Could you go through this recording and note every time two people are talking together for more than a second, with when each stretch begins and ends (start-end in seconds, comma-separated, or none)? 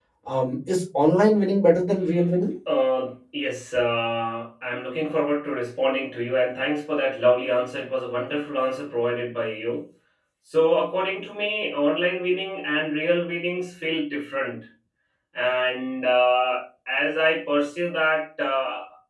none